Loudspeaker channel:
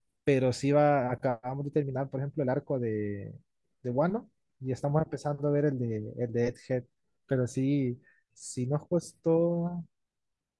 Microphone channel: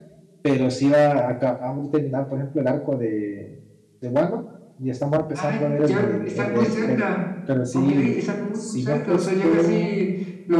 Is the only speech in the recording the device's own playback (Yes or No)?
No